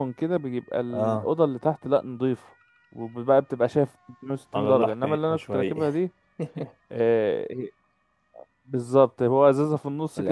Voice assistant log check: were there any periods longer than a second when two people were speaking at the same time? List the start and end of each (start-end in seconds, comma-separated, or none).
4.5-5.9